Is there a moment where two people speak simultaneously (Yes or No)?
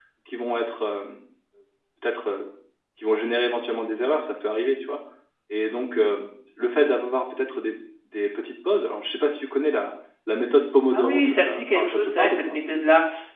Yes